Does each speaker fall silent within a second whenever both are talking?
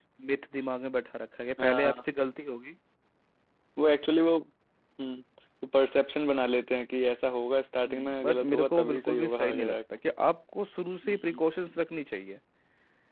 No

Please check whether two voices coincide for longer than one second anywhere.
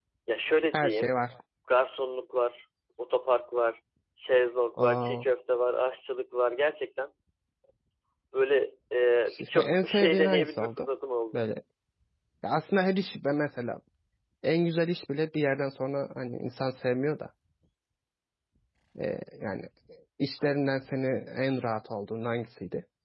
Yes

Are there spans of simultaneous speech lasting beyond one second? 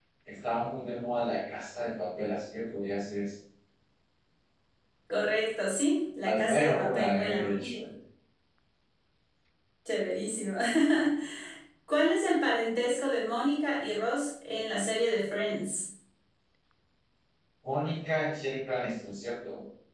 Yes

